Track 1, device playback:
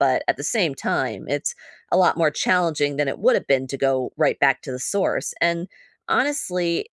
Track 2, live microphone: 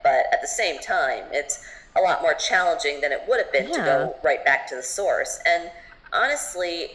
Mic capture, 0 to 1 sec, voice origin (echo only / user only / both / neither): echo only